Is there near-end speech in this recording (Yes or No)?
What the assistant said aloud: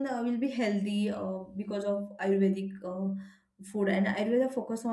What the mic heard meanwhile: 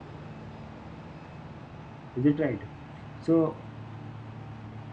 Yes